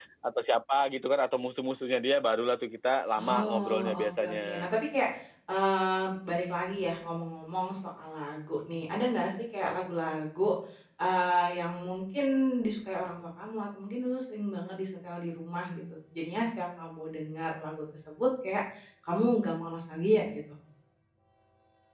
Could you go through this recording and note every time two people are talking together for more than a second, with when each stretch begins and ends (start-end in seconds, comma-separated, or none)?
3.2-4.7